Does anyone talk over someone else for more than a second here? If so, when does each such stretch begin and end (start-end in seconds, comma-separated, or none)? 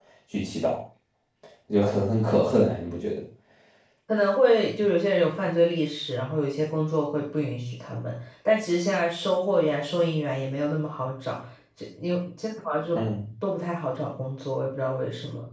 none